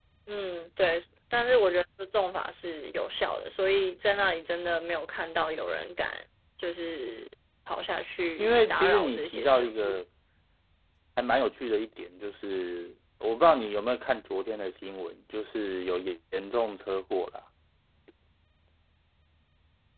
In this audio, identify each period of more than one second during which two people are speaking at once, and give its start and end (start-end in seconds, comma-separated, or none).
8.4-10.0